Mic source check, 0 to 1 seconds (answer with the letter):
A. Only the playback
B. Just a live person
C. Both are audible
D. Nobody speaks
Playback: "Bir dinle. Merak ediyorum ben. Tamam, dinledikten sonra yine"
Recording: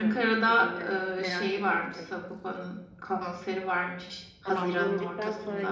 C